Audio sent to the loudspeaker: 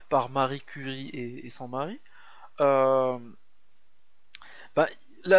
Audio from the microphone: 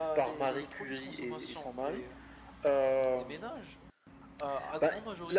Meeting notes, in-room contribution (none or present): present